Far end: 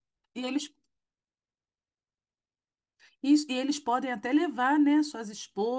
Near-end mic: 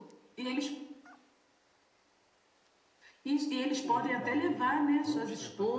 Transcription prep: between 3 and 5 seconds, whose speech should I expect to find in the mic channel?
both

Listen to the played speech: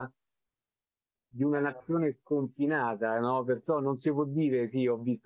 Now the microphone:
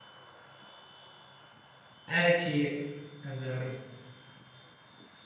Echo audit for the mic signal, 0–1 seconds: neither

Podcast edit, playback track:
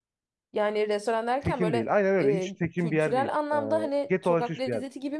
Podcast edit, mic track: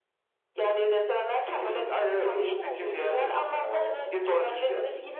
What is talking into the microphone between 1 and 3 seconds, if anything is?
both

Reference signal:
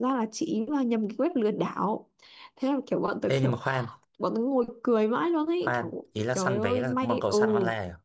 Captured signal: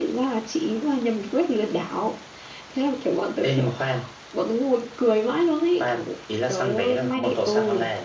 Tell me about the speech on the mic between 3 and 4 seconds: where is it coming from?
echo only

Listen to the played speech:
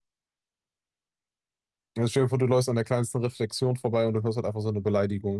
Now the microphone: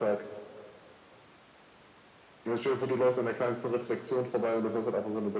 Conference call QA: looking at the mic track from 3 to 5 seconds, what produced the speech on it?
echo only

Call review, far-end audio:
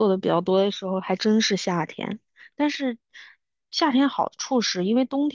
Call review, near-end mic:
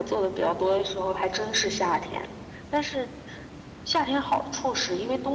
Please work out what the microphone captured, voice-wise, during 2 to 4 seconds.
echo only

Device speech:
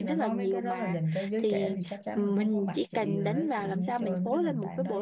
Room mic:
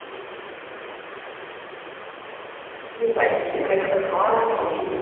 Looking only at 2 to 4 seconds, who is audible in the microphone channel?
user only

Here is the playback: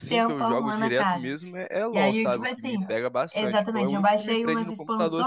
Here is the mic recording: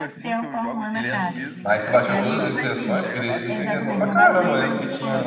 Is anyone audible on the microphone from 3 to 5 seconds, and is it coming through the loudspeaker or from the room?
both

